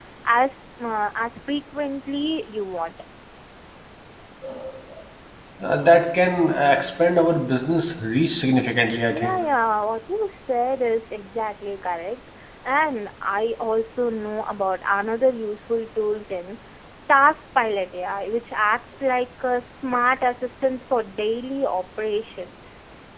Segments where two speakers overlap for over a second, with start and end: none

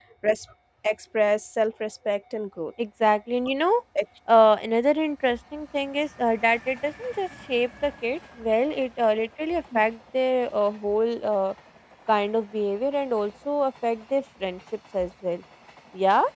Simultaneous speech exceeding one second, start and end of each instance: none

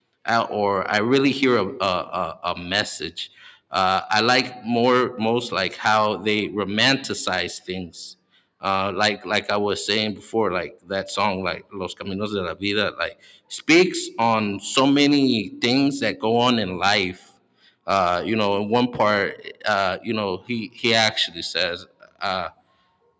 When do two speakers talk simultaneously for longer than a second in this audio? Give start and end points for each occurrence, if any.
none

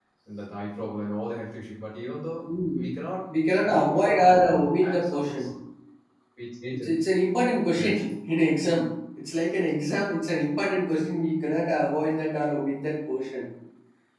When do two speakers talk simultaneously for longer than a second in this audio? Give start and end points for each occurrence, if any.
3.6-5.5

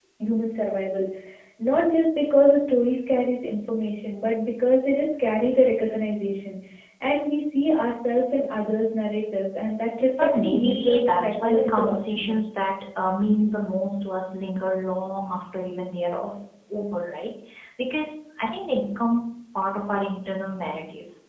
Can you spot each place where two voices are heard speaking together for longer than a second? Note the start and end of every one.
10.2-12.4

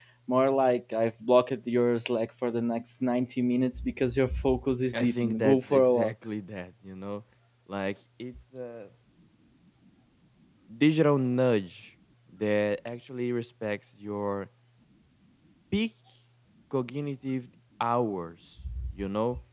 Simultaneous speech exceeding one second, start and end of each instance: 4.9-6.1

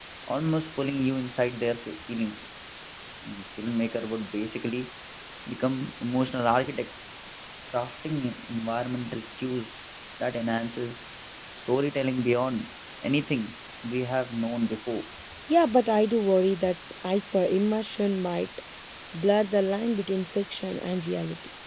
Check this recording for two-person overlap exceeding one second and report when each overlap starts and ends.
none

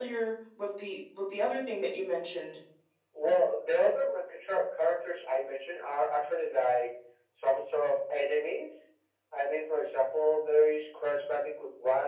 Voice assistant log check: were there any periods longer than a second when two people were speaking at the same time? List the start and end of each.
none

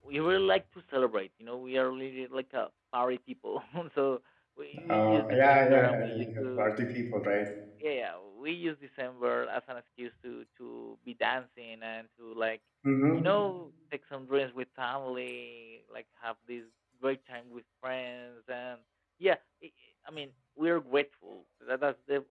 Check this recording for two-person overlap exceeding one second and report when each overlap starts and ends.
4.9-6.7

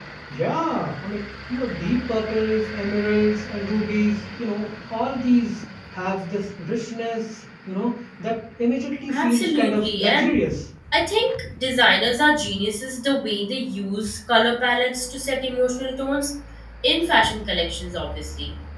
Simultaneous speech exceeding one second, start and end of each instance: 9.1-10.3

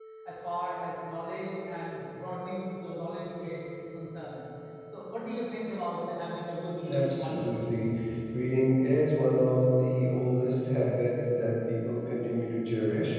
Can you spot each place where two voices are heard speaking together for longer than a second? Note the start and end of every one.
none

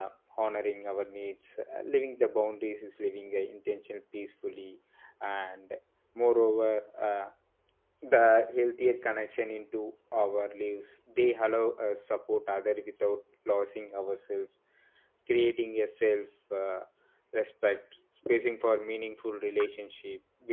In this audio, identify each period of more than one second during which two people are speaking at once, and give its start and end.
none

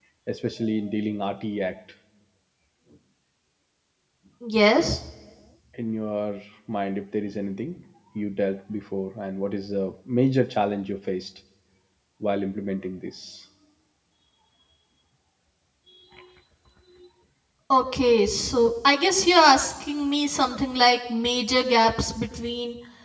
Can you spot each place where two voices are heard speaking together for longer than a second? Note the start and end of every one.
none

